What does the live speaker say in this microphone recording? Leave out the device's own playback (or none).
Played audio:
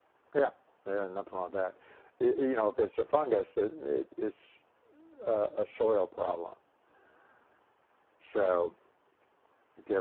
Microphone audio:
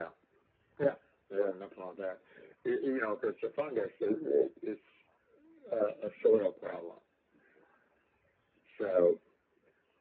none